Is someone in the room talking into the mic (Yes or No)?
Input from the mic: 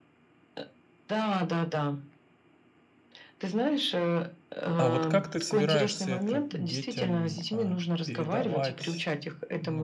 Yes